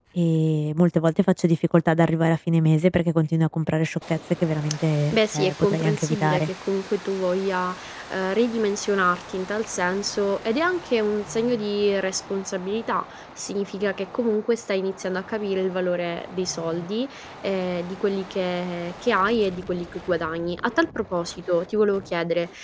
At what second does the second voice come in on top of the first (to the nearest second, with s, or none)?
5 s